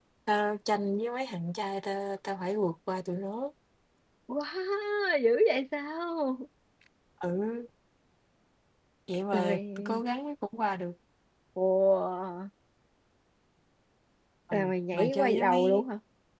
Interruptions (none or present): present